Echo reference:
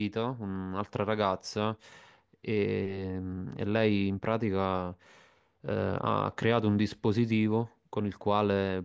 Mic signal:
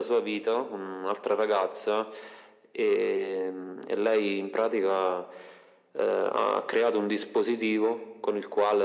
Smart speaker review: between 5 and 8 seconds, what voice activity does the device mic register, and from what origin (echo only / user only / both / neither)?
echo only